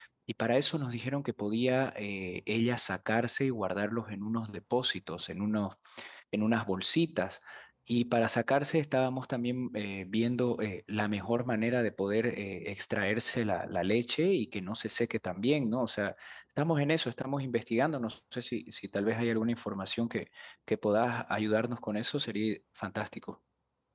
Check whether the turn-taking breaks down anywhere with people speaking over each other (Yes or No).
No